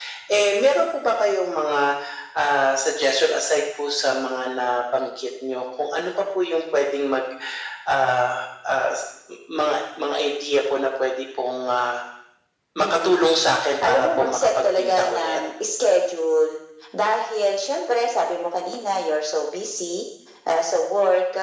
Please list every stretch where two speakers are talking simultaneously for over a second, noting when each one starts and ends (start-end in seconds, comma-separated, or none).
13.8-15.4